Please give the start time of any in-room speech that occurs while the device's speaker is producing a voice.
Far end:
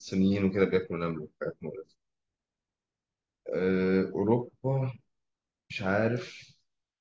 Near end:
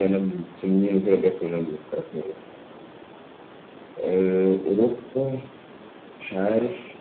none

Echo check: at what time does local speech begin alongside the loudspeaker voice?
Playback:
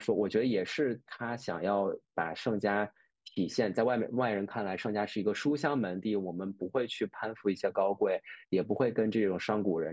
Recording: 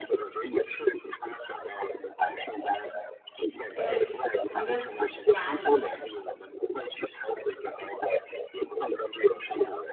3.8 s

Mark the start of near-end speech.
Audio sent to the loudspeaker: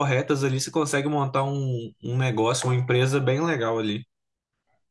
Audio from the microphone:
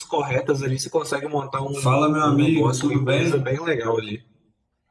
1.8 s

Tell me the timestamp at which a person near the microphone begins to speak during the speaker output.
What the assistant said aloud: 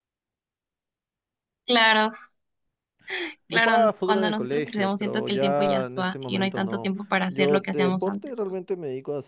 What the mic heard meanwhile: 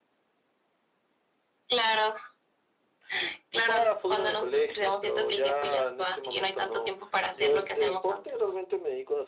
none

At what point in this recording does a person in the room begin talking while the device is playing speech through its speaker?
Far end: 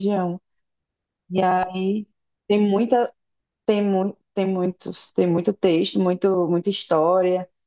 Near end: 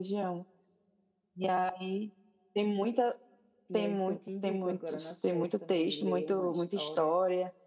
3.7 s

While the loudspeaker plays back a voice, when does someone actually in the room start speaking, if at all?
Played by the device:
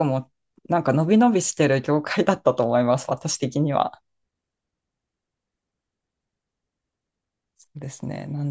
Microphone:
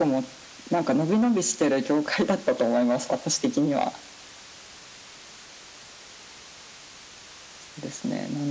none

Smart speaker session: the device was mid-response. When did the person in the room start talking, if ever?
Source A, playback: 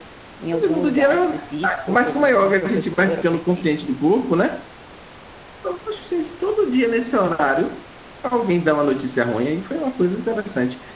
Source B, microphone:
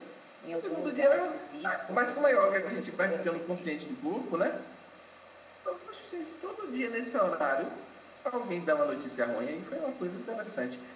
none

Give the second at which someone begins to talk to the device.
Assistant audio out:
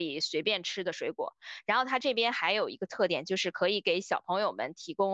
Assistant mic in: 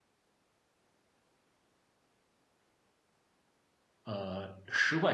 4.0 s

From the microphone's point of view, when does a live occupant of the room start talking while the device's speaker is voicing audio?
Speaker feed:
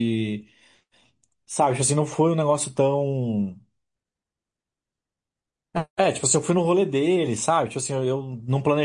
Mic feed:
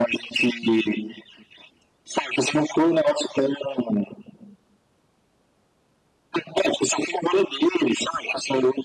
none

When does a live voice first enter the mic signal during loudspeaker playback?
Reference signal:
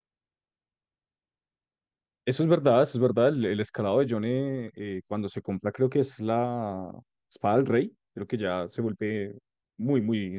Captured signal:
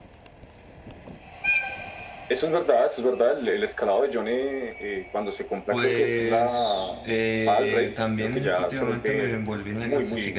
5.7 s

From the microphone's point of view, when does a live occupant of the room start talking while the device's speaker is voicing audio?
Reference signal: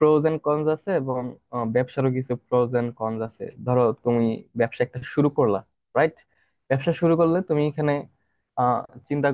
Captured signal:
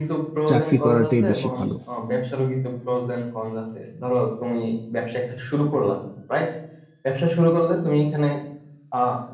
0.5 s

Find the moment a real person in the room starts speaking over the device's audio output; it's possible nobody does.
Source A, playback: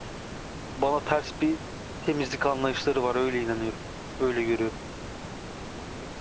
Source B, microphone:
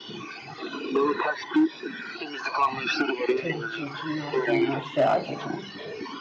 3.4 s

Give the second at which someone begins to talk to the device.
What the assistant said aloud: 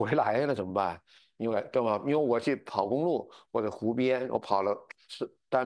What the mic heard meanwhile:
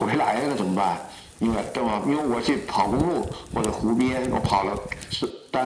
none

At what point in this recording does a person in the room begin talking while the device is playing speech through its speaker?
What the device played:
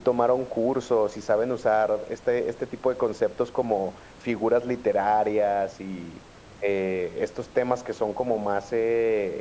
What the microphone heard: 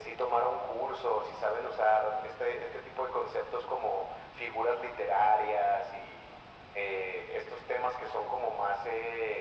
none

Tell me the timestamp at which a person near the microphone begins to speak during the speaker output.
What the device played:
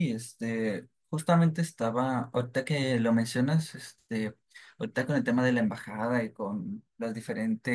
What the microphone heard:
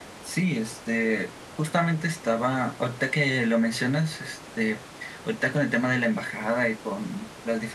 none

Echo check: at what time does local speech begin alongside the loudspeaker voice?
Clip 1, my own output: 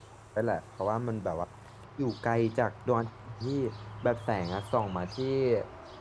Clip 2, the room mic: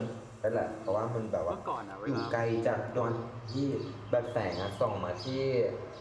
0.5 s

